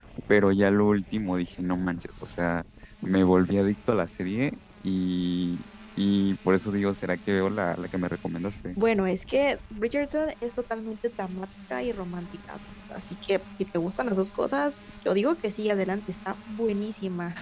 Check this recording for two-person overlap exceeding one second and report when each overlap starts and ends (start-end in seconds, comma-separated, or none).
none